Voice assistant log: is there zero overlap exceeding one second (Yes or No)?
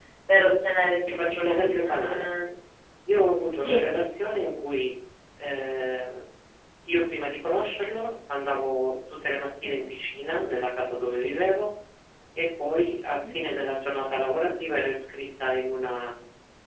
No